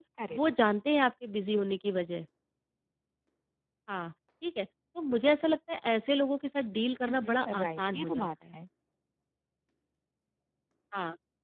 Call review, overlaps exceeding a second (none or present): present